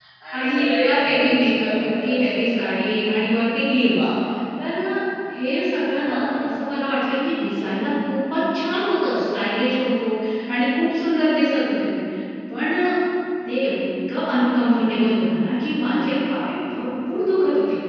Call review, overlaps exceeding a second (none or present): present